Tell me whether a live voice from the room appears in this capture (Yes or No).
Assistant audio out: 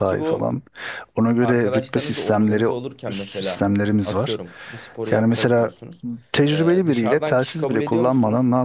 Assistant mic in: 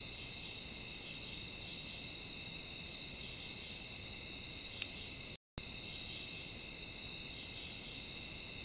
No